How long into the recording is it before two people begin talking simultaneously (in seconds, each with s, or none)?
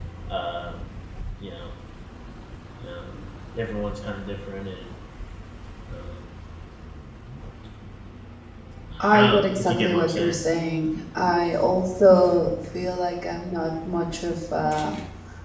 9.1 s